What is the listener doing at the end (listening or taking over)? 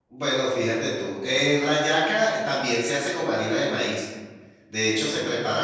listening